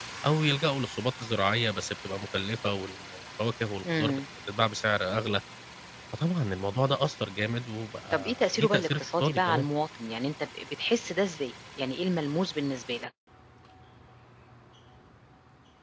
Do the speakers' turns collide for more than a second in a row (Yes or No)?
Yes